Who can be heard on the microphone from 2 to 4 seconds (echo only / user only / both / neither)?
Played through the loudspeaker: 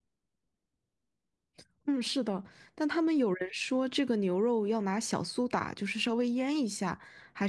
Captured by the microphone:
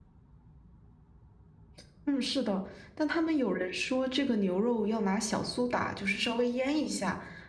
echo only